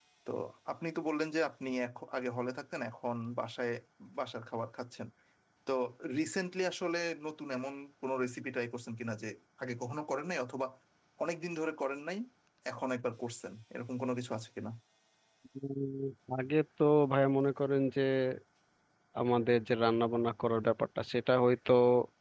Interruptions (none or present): none